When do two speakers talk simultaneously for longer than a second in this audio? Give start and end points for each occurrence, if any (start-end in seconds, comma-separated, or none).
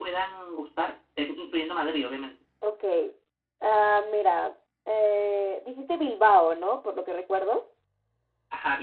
none